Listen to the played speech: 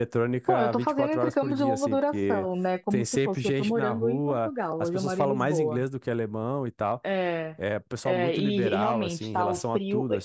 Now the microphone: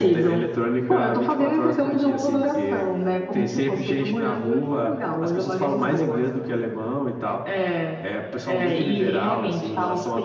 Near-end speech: none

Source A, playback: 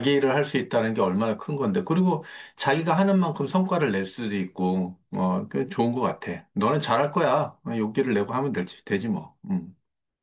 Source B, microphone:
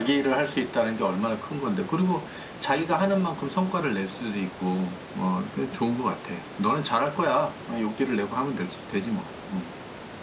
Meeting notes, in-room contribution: none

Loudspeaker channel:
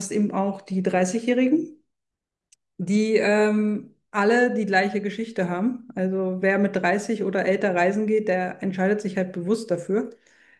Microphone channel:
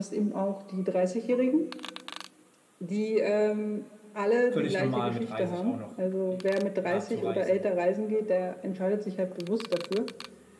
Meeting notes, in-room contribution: present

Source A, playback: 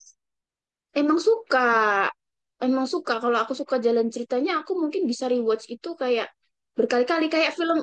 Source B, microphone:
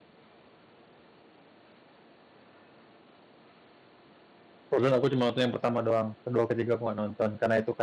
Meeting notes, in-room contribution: present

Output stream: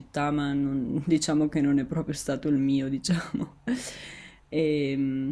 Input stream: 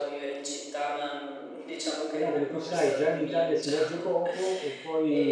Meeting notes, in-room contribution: present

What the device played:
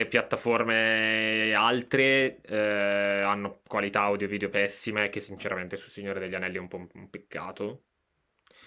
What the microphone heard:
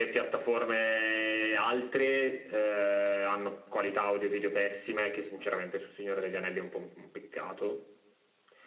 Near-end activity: none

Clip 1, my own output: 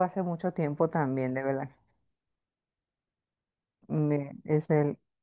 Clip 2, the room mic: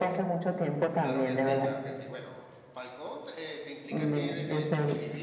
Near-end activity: present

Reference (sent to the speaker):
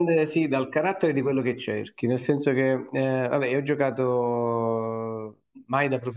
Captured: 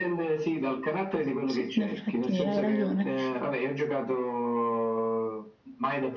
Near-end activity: present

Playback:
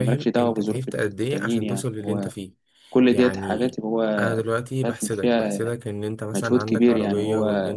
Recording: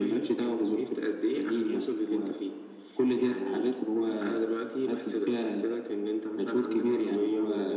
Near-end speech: none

